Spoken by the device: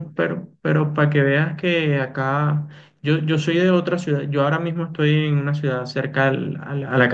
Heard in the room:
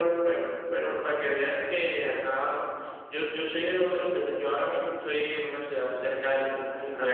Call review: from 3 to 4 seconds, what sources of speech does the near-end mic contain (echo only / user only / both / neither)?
echo only